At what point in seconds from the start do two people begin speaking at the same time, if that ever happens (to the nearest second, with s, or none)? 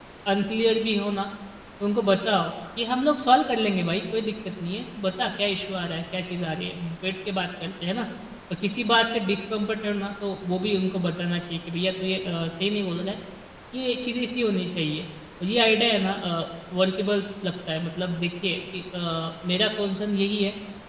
none